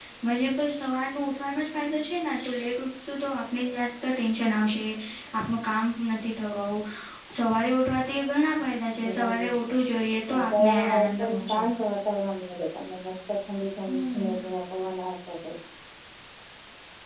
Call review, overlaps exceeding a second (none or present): present